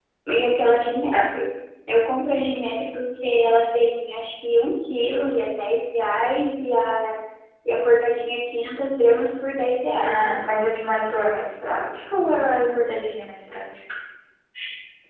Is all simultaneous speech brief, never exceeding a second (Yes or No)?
Yes